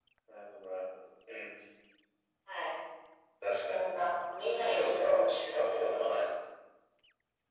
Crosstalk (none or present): present